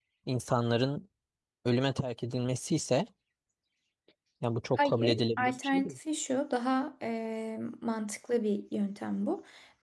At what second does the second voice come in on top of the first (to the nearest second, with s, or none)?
5 s